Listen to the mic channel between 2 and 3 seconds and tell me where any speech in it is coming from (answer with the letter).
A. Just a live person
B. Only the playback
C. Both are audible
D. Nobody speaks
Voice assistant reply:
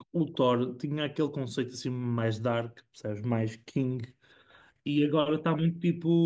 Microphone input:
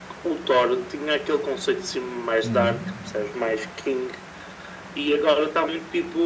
C